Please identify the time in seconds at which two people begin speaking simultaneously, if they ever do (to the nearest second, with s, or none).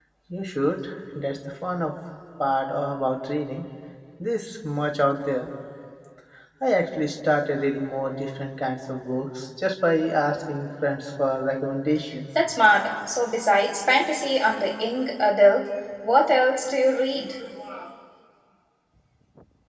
none